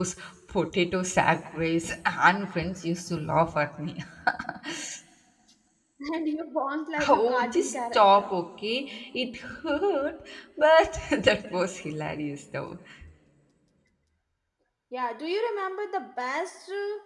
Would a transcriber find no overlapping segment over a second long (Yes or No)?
No